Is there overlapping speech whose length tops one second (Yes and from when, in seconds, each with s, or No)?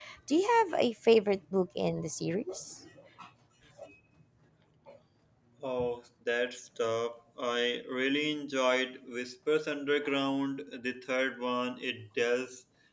No